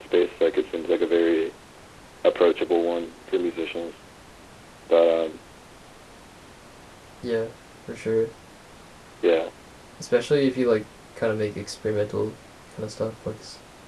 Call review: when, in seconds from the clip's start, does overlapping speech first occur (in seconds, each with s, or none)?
none